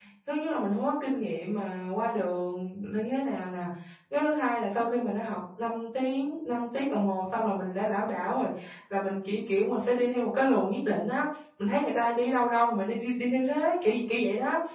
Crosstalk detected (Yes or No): No